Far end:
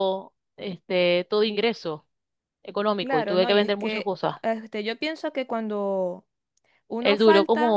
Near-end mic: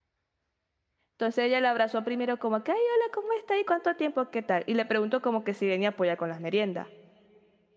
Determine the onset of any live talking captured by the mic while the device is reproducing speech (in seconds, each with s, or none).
1.1 s